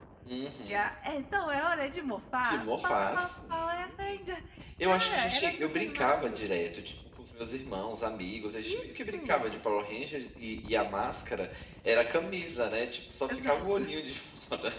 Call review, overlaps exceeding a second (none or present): present